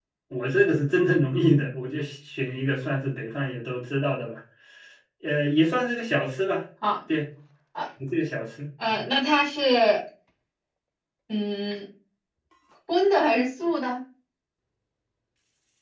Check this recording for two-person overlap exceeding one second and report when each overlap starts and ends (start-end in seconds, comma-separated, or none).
none